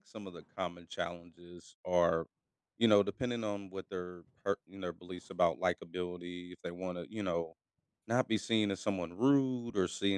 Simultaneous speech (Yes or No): No